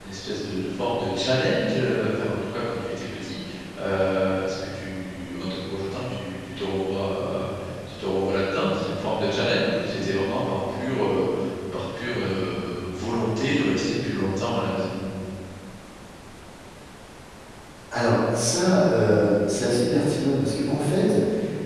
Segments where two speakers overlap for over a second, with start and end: none

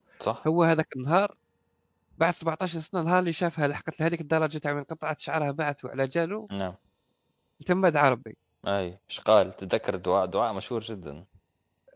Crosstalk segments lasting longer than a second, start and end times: none

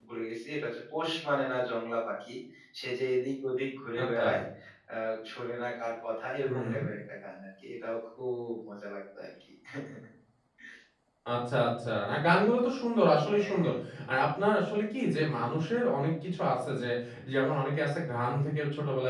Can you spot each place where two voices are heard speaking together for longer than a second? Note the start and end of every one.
none

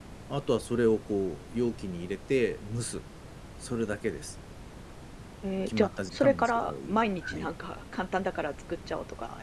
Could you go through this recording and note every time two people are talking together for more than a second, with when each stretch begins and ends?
5.7-6.9

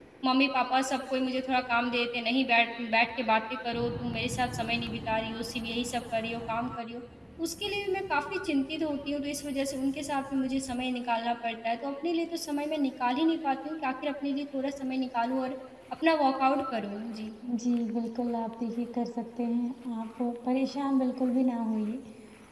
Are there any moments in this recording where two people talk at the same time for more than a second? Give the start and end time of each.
none

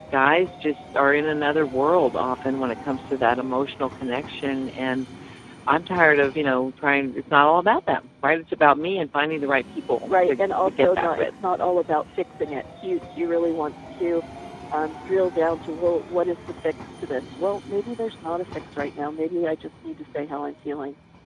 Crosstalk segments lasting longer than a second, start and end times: 10.1-11.3

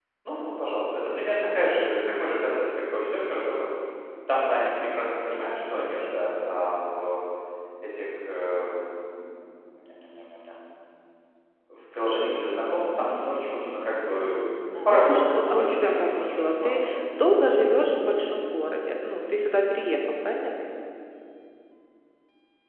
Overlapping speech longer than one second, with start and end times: 14.7-16.9

